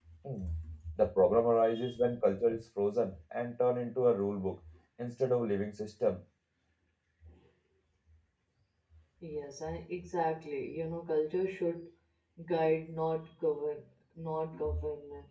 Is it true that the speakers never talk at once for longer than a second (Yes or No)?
Yes